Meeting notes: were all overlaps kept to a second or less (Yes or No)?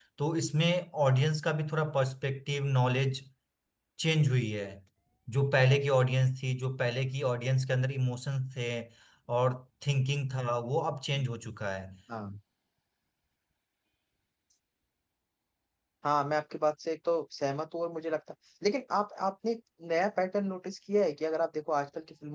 Yes